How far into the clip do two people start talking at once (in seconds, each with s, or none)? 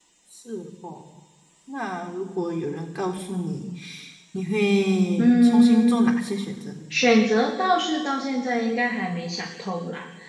5.2 s